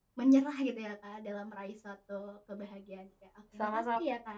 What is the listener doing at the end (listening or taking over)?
taking over